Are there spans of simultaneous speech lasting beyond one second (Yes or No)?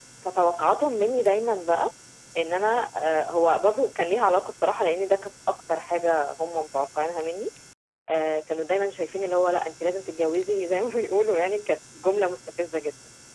No